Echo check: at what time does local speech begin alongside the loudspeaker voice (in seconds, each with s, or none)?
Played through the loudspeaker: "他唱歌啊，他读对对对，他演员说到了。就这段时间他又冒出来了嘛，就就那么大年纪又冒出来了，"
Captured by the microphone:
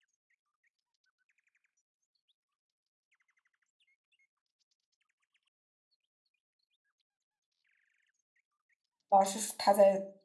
9.1 s